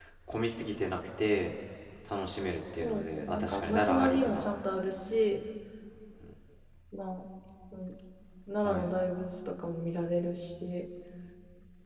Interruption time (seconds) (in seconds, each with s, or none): 2.8 s